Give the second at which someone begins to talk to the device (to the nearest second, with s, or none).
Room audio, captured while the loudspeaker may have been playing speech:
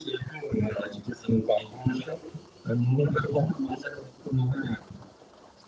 none